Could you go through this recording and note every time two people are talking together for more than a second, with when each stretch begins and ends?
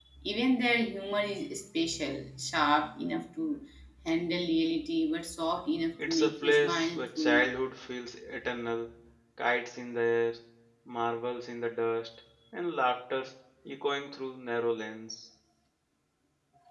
6.0-7.5

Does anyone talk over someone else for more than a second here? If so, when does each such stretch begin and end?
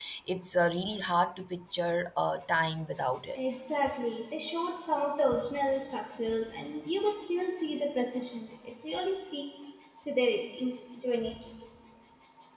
none

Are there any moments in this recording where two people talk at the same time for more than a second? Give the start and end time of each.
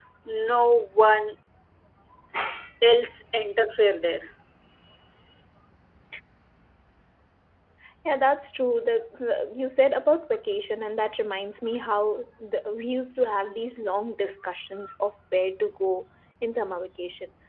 none

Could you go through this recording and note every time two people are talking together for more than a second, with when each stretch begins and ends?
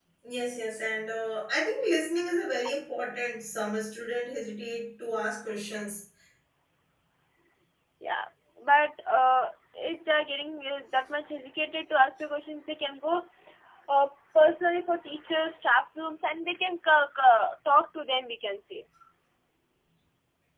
none

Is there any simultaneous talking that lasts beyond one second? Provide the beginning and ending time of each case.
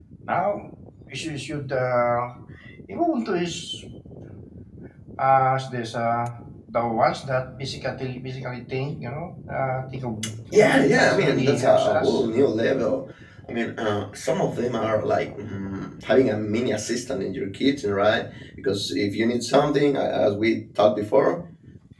10.5-12.2

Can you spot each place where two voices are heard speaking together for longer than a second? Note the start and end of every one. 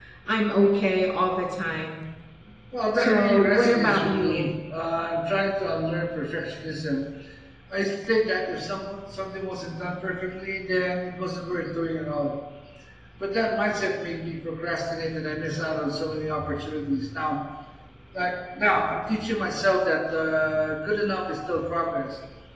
3.0-4.5

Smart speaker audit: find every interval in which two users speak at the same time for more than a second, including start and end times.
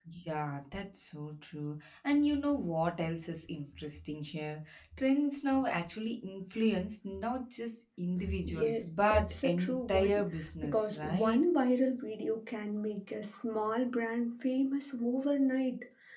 8.4-11.4

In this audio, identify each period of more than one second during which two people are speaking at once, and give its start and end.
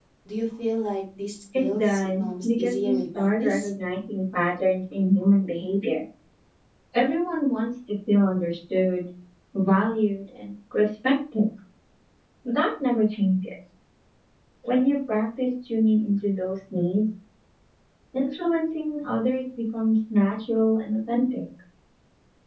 1.6-3.7

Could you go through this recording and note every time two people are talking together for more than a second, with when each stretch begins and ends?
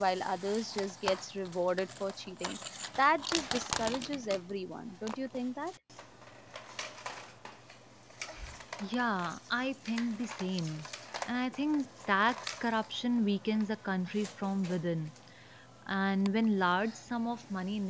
none

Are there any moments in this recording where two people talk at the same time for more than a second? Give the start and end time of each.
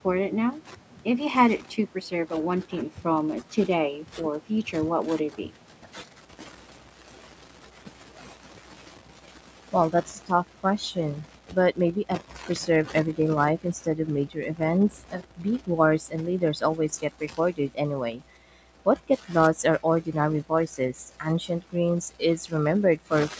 none

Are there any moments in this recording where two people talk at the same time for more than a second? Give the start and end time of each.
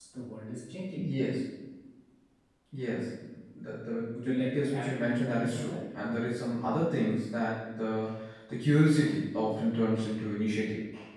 4.2-5.8

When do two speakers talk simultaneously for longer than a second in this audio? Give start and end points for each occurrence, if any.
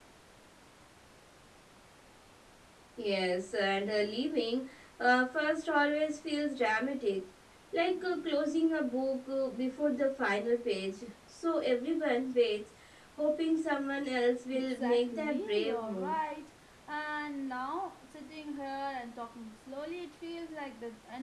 14.5-16.2

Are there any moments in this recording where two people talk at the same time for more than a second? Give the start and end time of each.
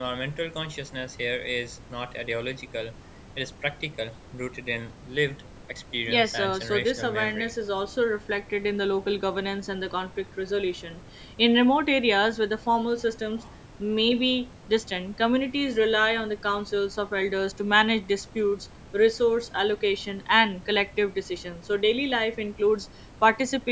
6.1-7.5

